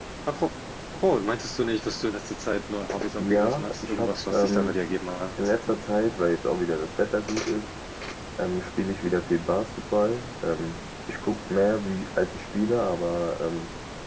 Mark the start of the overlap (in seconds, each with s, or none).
3.0 s